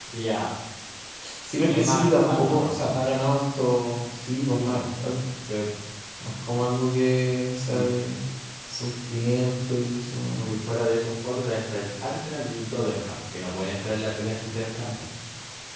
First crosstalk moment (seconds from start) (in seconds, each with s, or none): 1.7 s